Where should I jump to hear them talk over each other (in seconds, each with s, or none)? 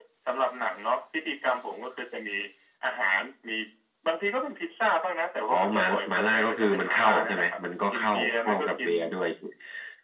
5.5 s